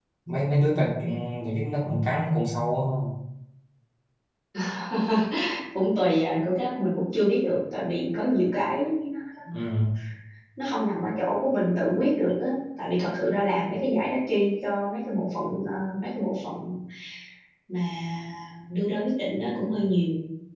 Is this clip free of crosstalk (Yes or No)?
Yes